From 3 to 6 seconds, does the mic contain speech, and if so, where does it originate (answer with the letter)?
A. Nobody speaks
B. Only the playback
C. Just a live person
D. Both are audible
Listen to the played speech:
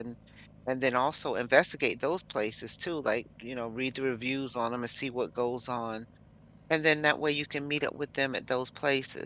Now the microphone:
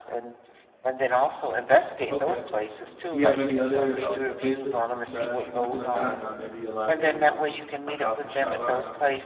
D